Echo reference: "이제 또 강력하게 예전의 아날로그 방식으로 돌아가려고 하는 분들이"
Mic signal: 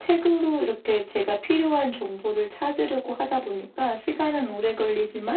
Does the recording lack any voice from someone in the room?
No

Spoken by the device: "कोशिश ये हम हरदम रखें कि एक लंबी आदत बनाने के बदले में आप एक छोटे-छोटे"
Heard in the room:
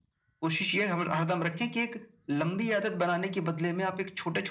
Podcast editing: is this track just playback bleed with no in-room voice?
Yes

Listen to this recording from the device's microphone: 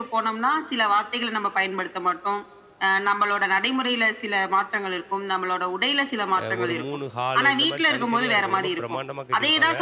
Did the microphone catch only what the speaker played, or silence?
No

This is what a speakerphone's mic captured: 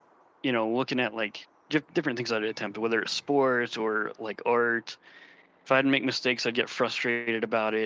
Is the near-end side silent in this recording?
No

